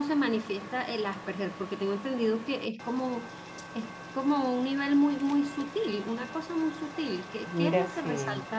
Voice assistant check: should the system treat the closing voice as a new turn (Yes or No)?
No